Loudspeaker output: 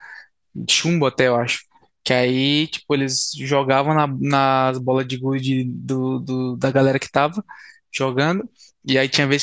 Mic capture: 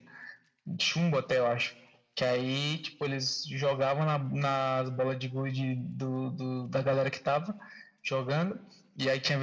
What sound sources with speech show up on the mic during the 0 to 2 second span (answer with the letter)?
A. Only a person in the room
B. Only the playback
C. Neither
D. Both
B